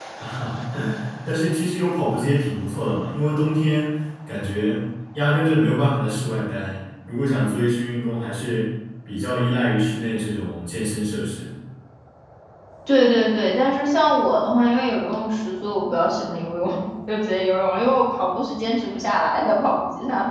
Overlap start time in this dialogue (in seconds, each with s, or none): none